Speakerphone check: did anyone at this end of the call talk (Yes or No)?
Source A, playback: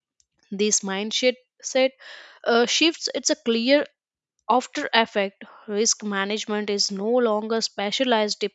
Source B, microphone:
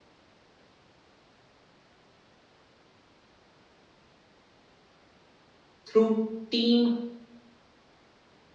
Yes